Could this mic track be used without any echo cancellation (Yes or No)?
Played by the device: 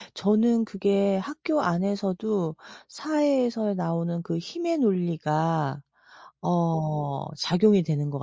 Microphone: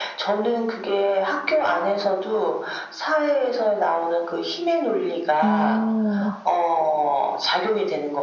No